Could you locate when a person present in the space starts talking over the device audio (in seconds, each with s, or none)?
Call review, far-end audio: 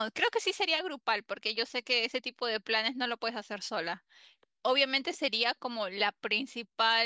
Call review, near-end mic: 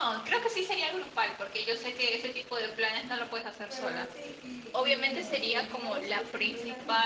3.6 s